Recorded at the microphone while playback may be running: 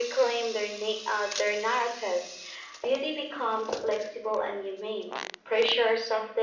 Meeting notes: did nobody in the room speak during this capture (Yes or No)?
Yes